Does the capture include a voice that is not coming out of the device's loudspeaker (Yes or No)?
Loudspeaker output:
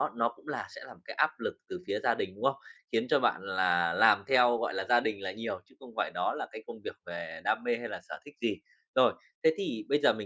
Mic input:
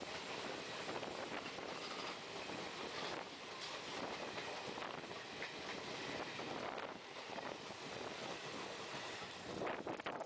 No